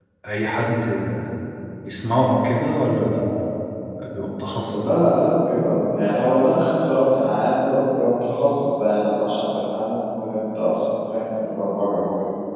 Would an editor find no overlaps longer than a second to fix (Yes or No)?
Yes